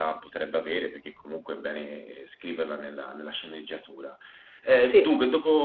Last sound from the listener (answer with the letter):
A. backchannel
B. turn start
A